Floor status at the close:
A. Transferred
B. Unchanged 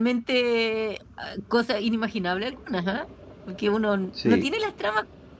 B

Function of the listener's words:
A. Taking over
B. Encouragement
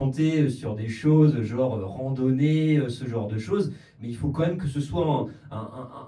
B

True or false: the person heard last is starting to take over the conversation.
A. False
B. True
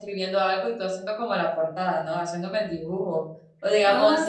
A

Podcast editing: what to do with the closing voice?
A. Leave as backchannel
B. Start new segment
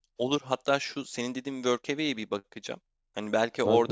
A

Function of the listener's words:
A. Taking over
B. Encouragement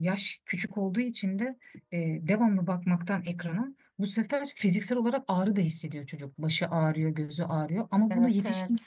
B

